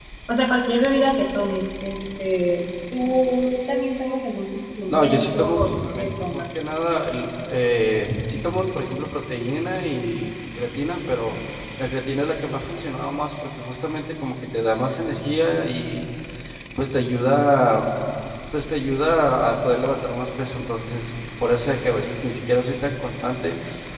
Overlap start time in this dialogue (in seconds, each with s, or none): 4.9 s